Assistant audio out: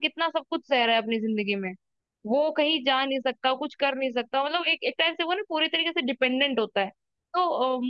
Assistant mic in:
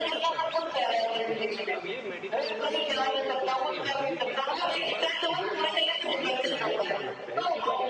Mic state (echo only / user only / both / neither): both